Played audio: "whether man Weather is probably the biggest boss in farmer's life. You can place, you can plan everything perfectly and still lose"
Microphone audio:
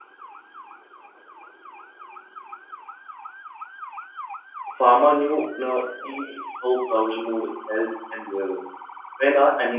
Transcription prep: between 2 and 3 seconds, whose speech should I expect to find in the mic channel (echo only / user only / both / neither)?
neither